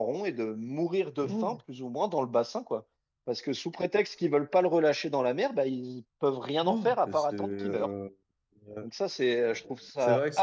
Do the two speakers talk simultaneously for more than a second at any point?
Yes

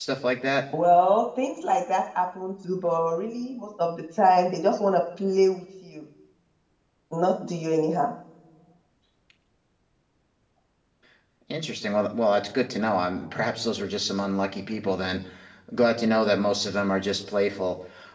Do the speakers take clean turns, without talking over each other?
Yes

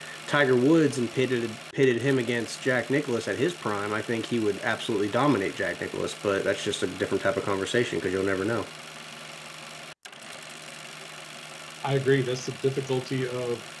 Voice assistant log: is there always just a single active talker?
Yes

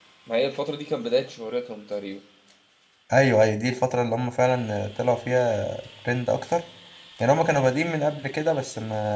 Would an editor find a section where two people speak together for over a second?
No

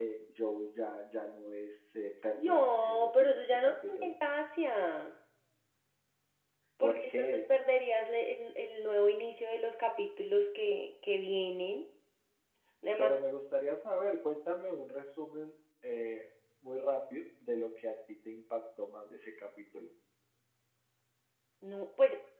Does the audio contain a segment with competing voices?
Yes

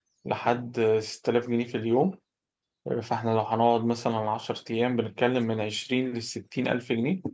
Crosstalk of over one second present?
No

